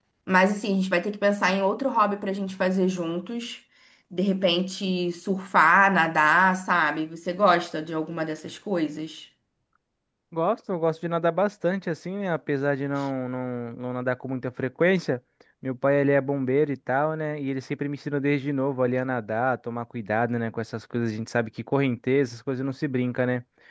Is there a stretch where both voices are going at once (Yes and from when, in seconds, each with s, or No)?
No